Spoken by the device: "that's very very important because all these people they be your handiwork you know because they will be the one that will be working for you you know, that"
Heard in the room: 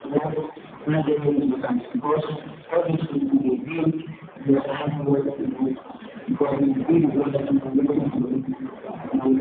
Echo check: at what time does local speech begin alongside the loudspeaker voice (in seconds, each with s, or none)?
none